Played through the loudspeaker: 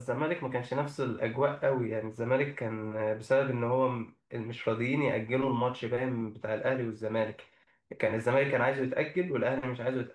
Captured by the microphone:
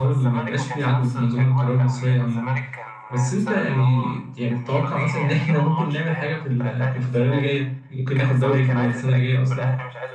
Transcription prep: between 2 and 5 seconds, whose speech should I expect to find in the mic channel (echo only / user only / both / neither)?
both